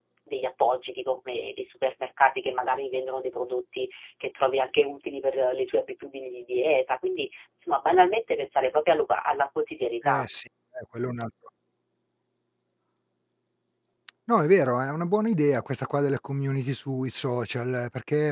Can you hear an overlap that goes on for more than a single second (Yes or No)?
No